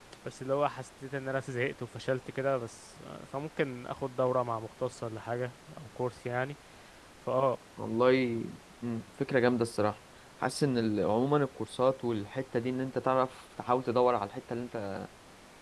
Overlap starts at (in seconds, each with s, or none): none